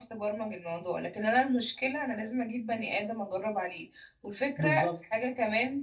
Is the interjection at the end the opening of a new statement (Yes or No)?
No